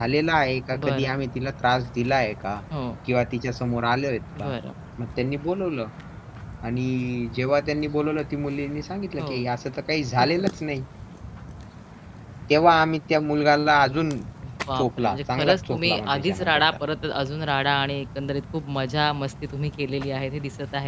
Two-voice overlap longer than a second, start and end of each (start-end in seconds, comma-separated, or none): 14.8-16.6